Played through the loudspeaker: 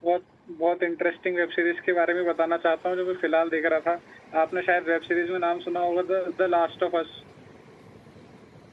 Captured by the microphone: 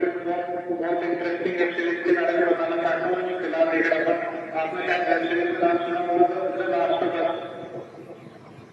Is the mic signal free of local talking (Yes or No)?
Yes